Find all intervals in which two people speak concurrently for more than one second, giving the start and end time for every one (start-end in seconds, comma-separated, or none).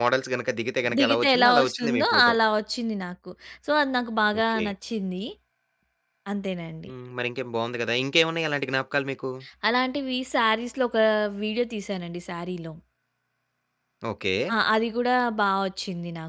1.0-2.3